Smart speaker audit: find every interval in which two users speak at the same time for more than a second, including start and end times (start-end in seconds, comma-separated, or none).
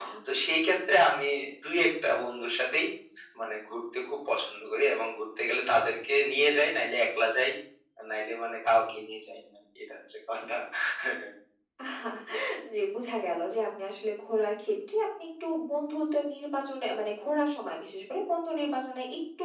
none